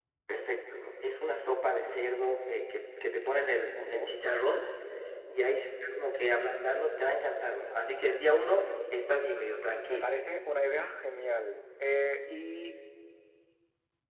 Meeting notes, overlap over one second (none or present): none